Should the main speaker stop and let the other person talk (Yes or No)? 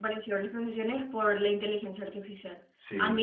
No